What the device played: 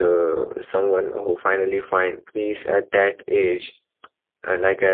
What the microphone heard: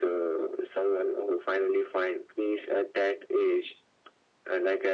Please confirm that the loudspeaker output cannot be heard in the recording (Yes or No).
No